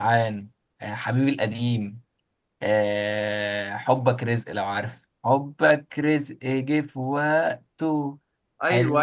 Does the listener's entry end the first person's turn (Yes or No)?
Yes